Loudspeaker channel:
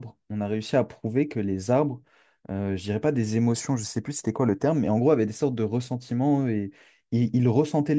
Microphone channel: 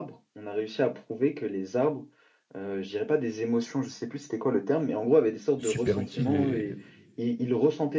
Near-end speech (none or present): present